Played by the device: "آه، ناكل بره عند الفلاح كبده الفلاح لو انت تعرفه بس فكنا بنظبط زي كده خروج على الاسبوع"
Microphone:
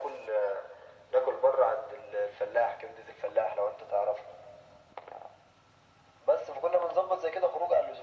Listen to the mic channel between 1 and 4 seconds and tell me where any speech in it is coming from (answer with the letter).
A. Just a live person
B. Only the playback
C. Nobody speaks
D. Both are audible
B